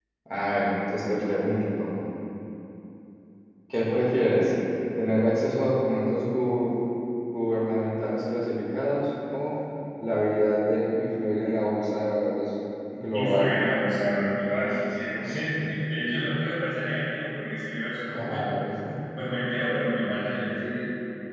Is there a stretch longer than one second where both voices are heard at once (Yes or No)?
No